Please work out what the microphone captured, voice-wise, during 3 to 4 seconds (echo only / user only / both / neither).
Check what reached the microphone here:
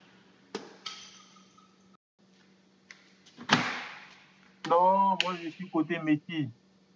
neither